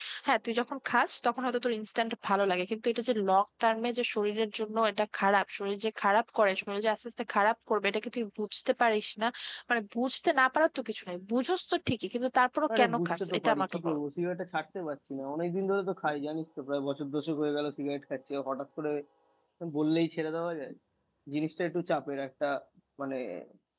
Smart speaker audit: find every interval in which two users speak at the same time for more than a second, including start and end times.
12.8-14.0

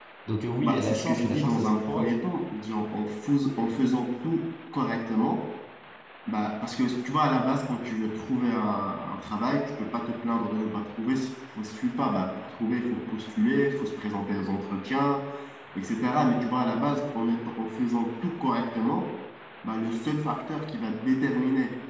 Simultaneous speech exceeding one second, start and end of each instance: 0.6-2.1

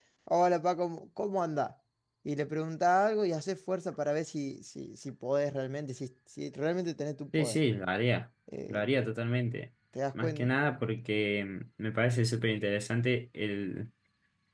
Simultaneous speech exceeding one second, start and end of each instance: none

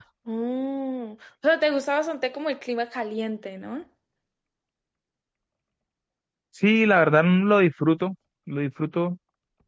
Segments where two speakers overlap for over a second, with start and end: none

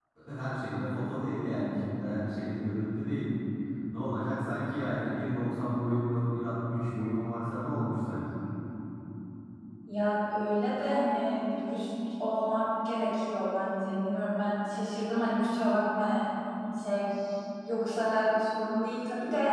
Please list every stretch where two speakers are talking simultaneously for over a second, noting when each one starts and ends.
none

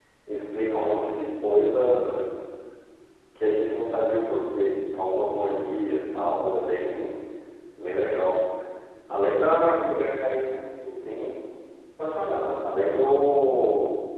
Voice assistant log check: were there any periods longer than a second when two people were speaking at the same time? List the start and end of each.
none

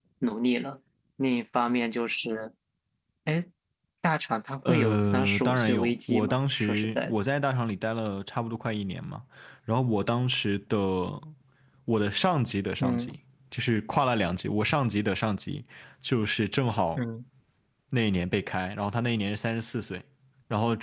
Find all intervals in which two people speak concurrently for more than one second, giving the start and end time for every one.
4.7-7.2

